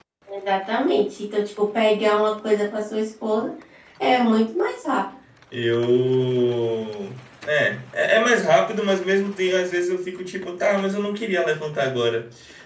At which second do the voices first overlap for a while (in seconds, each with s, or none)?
none